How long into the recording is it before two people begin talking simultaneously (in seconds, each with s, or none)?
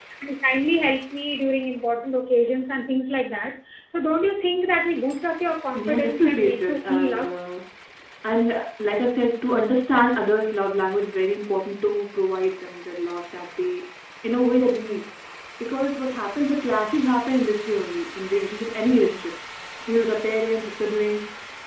5.7 s